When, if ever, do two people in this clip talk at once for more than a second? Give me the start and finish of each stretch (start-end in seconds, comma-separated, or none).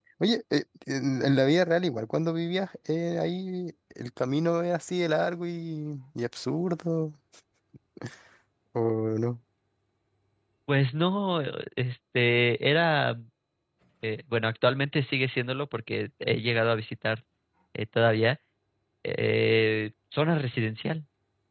none